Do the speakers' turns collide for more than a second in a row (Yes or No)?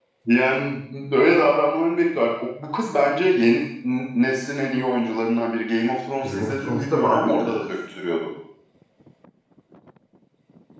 Yes